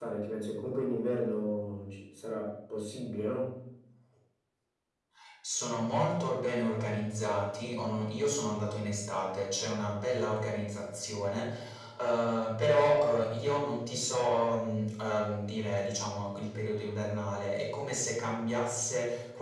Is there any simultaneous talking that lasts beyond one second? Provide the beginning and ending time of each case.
none

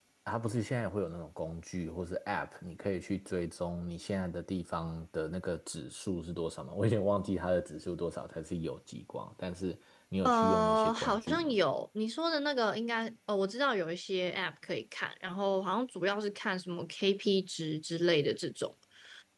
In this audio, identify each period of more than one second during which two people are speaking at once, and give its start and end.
10.2-11.5

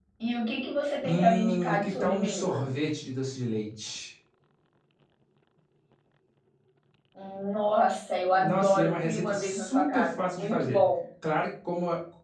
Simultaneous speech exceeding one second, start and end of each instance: 1.0-2.7, 8.3-10.8

